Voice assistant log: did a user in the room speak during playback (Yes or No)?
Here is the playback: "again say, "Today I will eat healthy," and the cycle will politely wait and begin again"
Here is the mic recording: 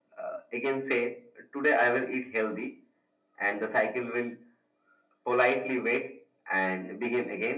No